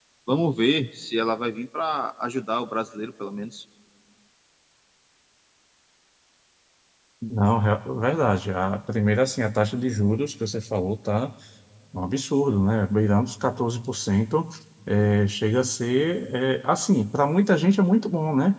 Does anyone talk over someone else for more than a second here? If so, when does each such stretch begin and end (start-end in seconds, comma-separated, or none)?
none